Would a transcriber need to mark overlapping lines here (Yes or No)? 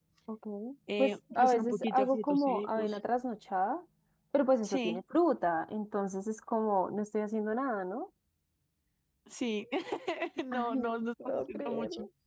Yes